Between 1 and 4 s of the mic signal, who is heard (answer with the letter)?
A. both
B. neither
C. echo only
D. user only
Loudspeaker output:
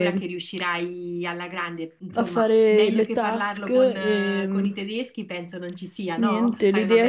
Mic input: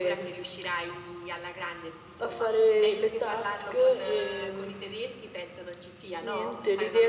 C